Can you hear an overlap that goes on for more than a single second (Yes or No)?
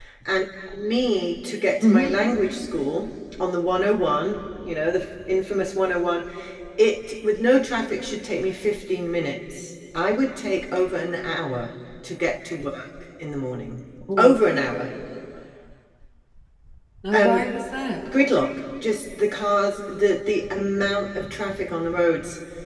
No